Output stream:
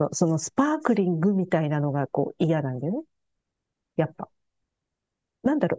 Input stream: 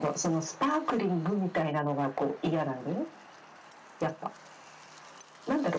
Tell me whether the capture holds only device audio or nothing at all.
Yes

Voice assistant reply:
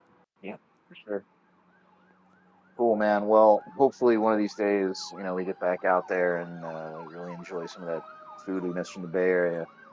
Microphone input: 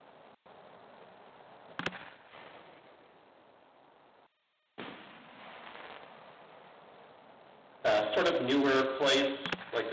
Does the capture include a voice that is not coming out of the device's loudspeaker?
Yes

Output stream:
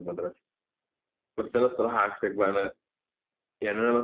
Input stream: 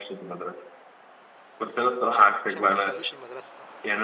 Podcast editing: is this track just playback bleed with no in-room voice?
No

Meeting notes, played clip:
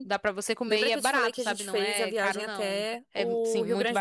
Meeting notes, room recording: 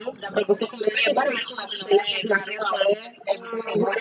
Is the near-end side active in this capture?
No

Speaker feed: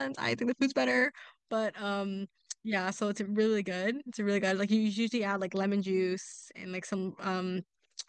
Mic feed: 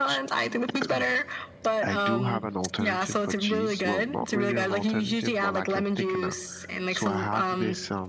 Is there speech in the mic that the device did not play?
Yes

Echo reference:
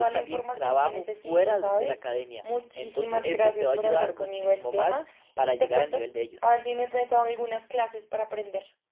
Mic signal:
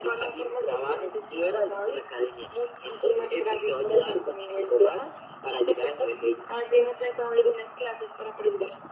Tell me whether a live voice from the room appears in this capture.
No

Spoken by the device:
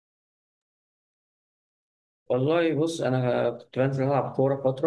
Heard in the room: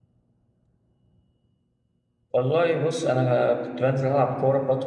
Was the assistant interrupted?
No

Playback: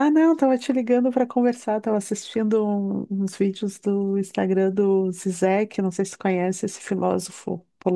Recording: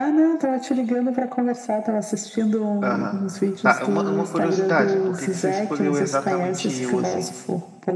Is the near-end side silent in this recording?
No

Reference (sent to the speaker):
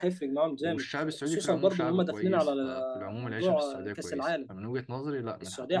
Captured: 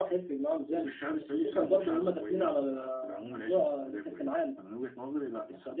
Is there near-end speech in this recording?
No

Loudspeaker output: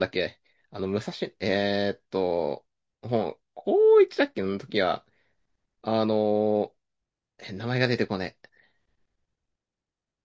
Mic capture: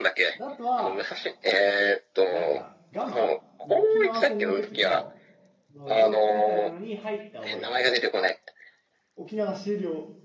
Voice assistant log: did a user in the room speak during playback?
Yes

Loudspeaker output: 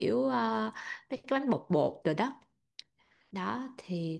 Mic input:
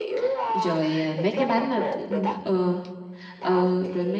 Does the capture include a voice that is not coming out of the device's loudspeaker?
Yes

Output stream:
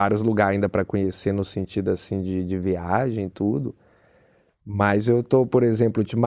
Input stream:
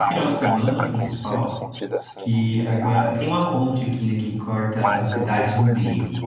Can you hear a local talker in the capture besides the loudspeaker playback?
Yes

